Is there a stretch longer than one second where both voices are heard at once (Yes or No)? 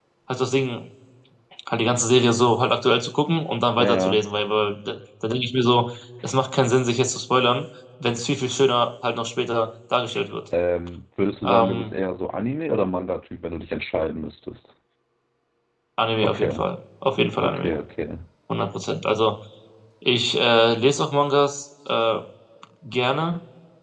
No